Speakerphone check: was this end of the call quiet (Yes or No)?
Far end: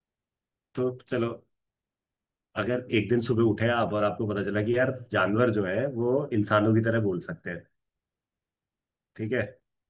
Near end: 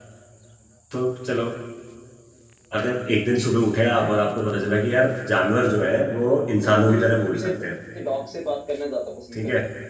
No